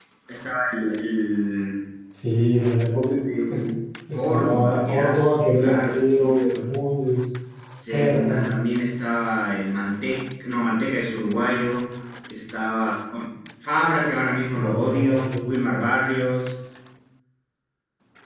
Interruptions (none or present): present